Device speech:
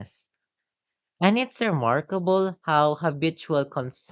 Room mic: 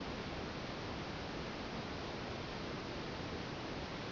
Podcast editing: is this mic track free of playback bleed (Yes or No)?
Yes